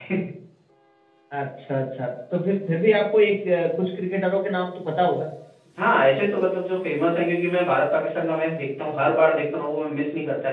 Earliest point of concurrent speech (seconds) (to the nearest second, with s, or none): none